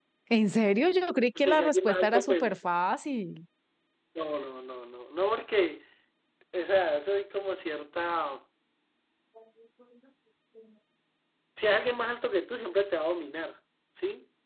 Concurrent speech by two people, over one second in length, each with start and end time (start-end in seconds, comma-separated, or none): 1.4-2.6